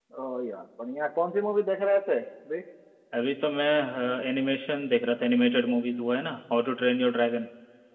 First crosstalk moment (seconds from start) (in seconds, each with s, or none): none